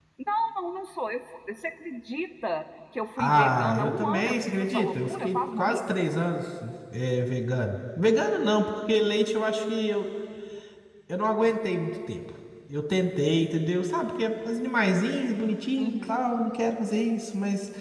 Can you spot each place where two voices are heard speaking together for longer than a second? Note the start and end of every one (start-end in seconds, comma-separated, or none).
3.2-5.7